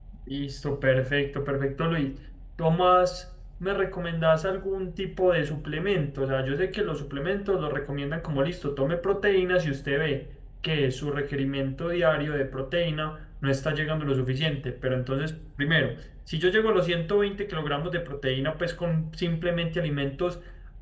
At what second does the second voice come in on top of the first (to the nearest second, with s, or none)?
none